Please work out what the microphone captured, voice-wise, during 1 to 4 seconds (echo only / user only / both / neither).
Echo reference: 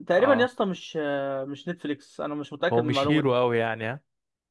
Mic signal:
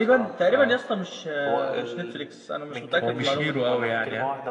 both